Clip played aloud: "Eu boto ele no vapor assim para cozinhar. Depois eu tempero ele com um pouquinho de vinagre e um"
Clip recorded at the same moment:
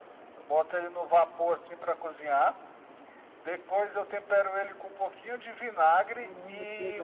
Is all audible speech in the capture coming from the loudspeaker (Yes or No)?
No